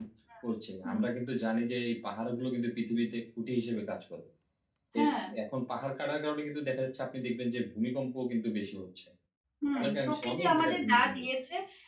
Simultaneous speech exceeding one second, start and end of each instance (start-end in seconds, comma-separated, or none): 9.8-11.3